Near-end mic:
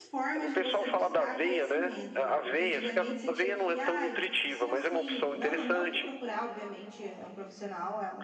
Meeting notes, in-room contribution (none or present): present